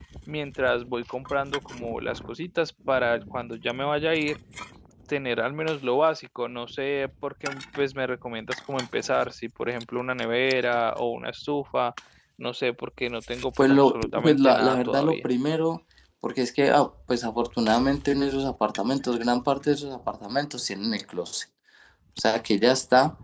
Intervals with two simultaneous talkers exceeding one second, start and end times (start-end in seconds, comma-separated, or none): 13.6-15.3